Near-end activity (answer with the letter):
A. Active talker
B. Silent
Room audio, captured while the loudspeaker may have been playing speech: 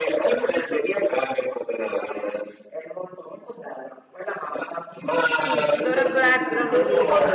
A